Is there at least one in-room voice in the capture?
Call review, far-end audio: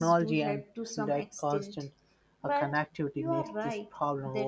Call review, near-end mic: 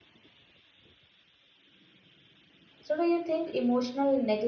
Yes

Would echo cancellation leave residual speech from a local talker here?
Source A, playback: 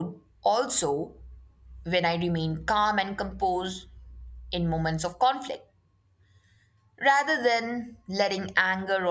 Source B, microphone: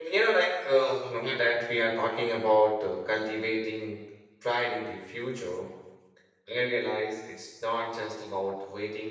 Yes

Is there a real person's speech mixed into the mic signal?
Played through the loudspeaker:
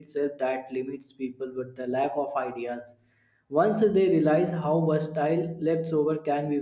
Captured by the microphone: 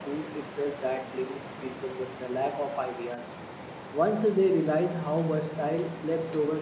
No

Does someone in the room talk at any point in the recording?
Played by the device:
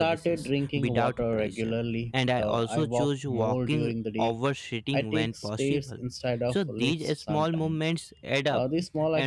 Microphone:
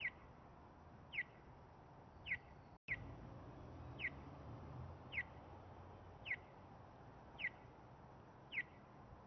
No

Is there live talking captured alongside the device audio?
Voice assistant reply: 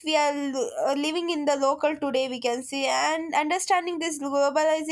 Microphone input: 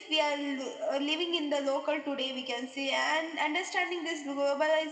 No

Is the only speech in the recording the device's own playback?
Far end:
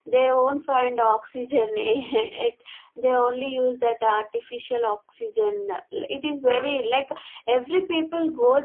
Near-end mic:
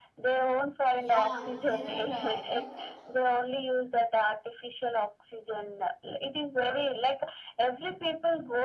No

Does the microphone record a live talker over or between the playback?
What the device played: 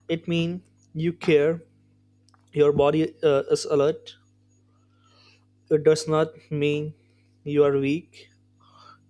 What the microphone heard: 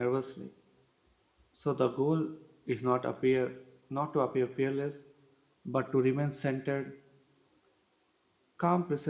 Yes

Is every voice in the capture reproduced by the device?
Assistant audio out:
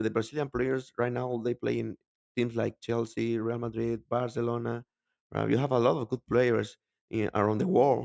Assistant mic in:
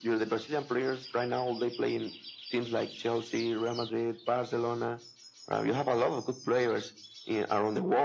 Yes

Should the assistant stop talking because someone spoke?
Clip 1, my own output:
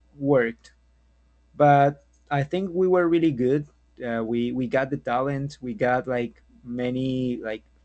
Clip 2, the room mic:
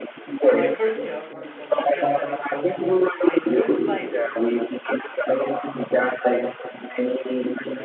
Yes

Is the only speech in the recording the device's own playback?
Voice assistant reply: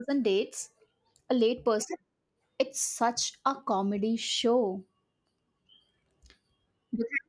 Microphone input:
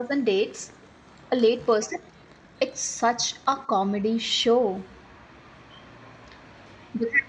Yes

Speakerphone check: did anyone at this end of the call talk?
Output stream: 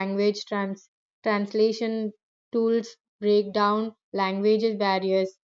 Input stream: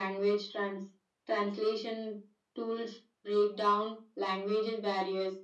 No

